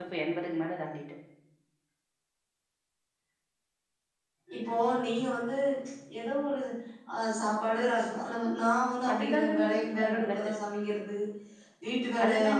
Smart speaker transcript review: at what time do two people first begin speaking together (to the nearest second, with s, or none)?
9 s